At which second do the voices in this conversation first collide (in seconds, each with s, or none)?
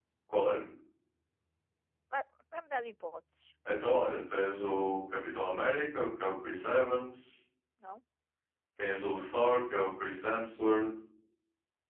none